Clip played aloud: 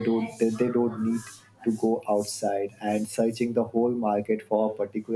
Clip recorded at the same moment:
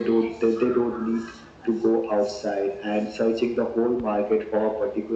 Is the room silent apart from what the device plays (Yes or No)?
Yes